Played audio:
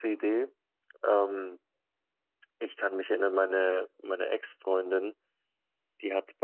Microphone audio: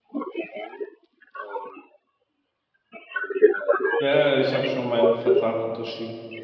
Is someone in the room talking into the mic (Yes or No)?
Yes